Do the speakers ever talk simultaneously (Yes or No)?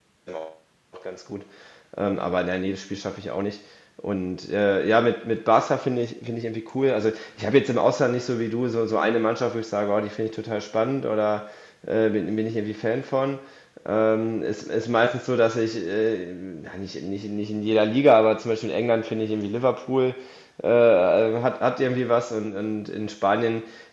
No